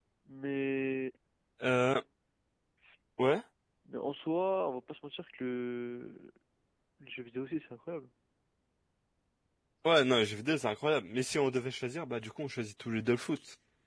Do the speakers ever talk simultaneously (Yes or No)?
No